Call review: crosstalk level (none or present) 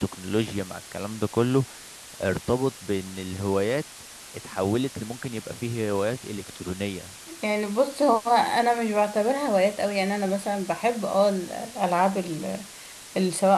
none